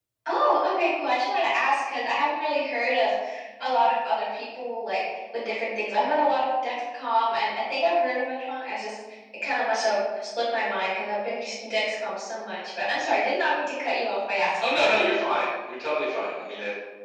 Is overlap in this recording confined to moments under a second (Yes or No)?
Yes